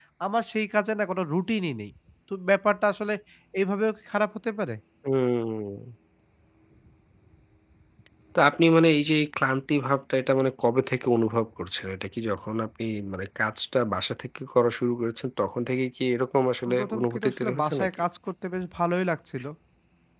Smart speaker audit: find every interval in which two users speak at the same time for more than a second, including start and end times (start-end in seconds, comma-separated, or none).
16.7-18.0